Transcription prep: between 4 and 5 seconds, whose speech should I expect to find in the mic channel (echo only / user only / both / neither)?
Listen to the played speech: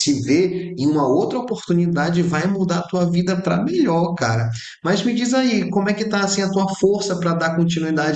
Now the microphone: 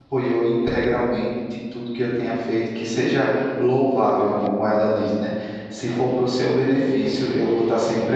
user only